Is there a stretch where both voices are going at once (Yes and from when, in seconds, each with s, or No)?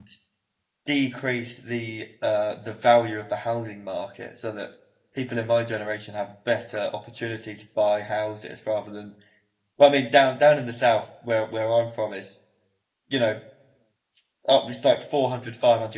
No